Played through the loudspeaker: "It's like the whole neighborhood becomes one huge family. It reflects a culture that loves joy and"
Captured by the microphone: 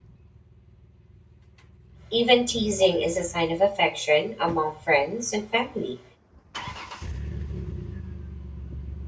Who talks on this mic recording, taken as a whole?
user only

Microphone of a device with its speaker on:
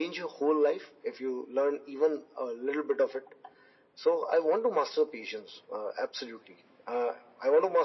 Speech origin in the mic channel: echo only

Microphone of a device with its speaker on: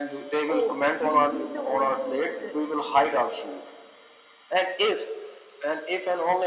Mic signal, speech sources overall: both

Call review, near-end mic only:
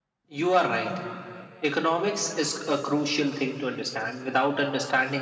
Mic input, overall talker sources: echo only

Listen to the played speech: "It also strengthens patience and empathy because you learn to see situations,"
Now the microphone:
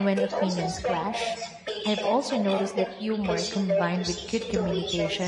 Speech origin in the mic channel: both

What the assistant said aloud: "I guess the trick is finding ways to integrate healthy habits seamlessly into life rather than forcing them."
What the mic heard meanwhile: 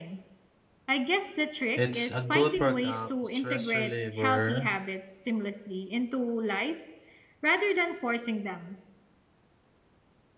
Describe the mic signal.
both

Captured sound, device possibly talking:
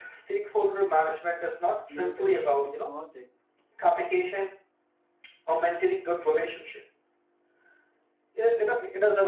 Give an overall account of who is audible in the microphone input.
both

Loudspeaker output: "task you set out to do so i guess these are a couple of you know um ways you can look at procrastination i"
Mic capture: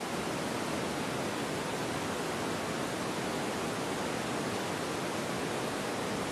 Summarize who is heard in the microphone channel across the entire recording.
neither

